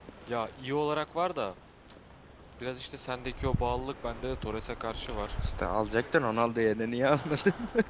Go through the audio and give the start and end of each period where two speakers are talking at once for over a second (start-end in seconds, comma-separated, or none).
none